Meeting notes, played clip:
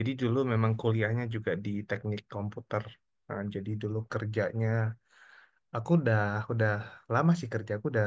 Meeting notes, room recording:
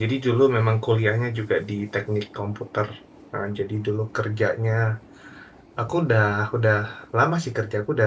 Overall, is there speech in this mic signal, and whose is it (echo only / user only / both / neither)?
echo only